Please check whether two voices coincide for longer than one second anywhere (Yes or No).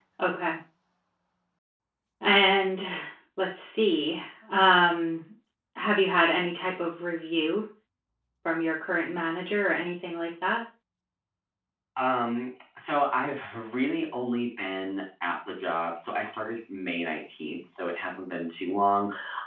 No